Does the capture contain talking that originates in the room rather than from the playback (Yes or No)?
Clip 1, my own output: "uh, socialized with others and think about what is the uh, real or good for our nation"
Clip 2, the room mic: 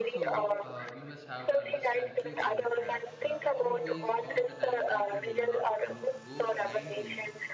Yes